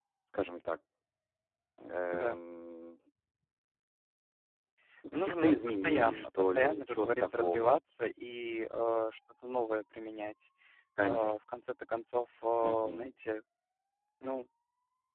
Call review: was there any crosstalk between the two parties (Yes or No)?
Yes